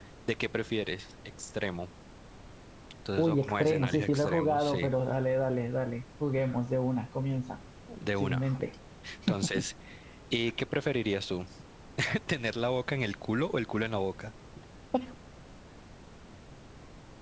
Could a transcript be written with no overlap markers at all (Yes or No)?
No